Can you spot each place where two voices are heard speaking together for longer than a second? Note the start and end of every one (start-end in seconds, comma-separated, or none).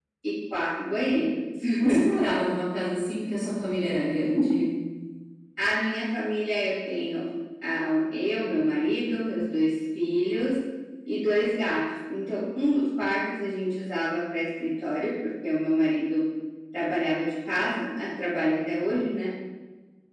none